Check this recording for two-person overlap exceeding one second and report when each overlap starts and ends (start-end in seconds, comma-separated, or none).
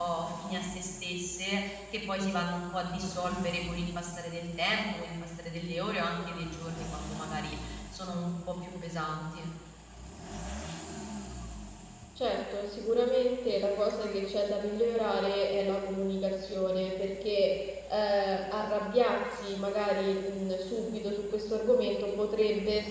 none